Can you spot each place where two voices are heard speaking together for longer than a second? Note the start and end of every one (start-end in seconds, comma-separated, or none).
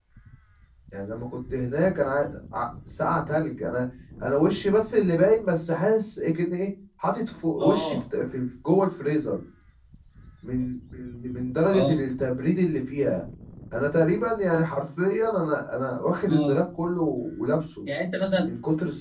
none